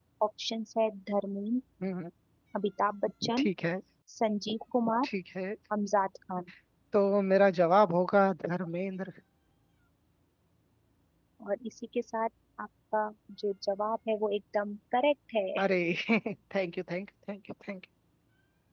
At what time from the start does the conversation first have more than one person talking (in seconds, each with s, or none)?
none